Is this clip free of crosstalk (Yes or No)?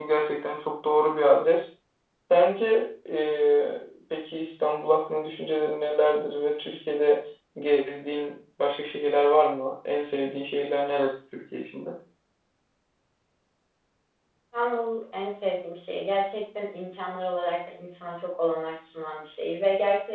Yes